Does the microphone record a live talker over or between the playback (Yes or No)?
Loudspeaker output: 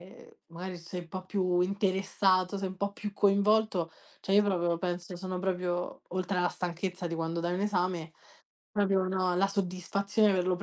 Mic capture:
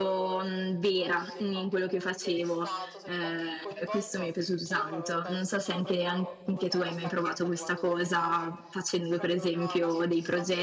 Yes